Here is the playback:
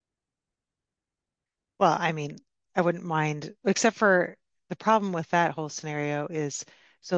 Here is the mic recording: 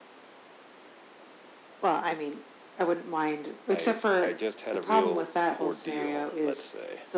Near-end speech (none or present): present